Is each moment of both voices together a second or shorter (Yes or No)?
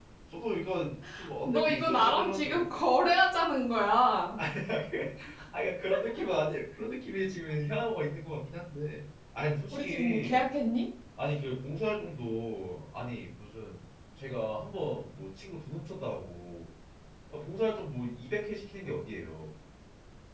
No